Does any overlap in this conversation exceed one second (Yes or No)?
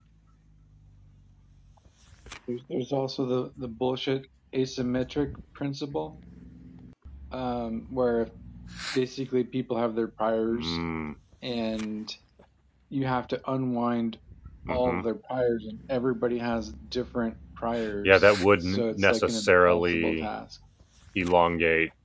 Yes